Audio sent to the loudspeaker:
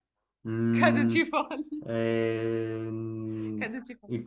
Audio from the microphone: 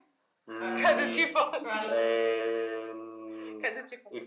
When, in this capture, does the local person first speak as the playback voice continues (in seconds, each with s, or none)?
0.6 s